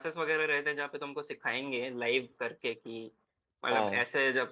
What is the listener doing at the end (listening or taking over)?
listening